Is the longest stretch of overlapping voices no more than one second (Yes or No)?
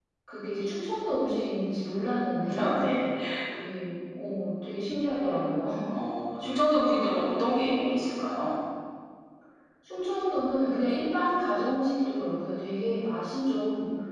Yes